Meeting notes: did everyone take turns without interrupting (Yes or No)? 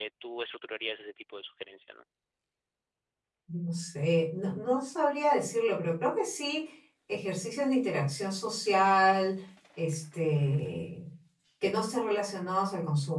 Yes